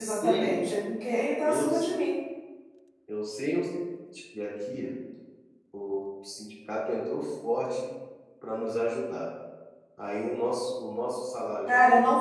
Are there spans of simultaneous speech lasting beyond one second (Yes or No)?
No